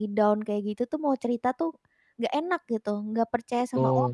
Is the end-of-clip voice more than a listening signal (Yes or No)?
Yes